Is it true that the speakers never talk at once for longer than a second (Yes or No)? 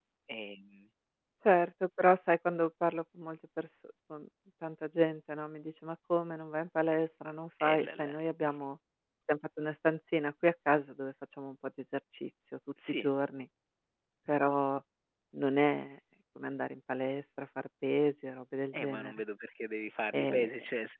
Yes